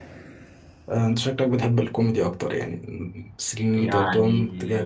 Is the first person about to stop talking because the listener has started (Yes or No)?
Yes